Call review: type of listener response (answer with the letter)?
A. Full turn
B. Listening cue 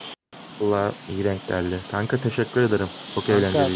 A